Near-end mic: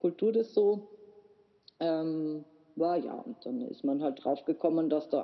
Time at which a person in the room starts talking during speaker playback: none

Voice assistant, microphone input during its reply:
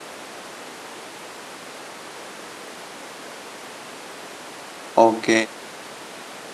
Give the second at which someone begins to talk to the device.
4.9 s

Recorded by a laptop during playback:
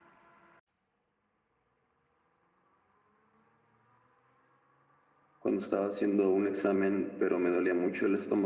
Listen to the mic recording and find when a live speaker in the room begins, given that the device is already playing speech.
5.4 s

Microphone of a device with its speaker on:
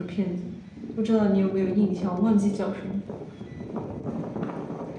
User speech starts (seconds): none

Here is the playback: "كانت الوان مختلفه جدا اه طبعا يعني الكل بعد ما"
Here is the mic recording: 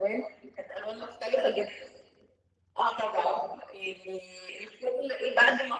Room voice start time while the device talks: none

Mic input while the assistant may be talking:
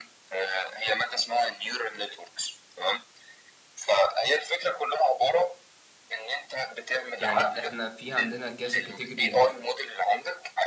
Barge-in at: 7.2 s

